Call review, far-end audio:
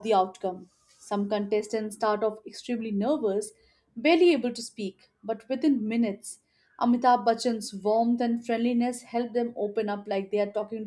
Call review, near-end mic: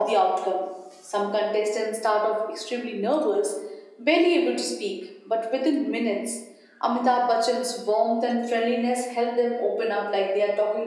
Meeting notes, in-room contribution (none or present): none